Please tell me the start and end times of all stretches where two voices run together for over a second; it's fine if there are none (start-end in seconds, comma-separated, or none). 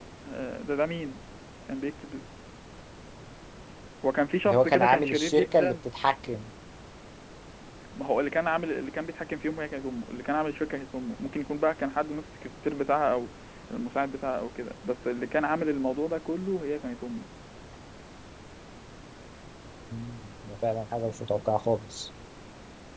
4.5-5.8